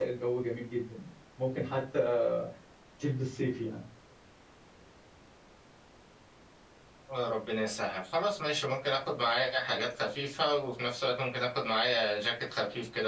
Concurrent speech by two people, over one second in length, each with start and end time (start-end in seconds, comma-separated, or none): none